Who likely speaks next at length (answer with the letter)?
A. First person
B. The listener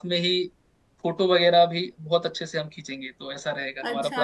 B